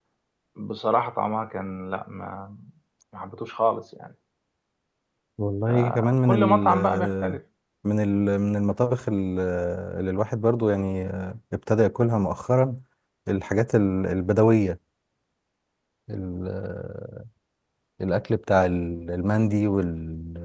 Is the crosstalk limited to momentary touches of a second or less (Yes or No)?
No